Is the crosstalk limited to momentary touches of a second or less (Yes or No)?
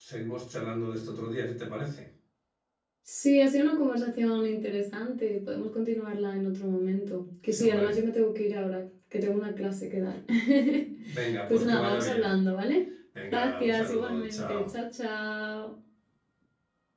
No